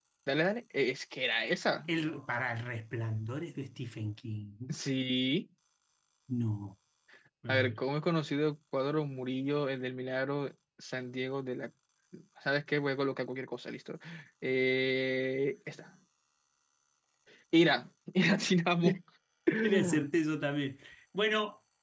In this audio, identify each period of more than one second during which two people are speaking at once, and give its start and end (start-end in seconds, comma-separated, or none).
none